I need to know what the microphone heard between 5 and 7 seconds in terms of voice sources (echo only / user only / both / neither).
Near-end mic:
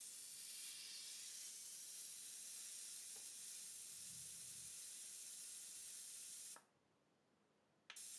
neither